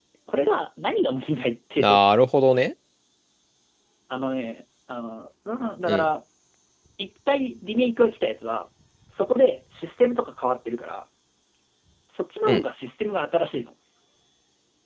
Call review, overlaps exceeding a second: none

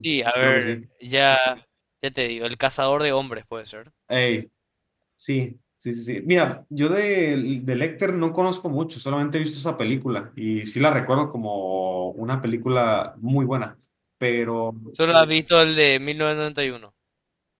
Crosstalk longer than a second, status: none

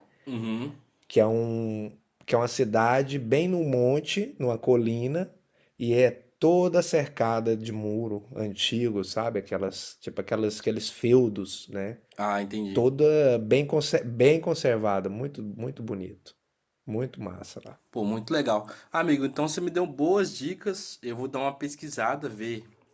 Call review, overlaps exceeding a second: none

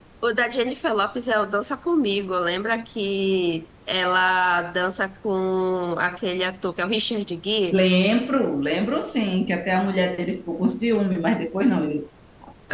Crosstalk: none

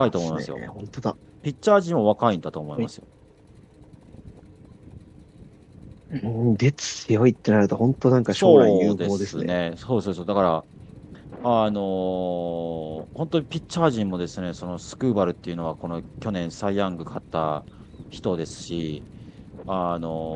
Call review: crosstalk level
present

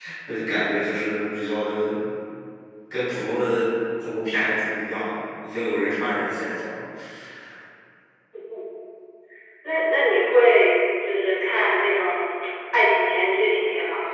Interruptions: none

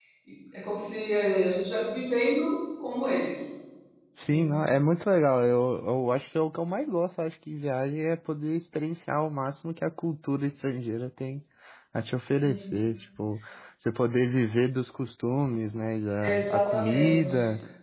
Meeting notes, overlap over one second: present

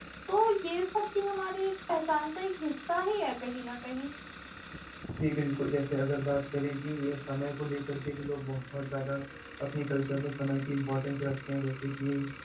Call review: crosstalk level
none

